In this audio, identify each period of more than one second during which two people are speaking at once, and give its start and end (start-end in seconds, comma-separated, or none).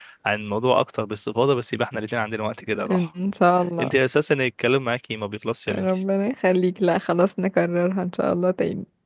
none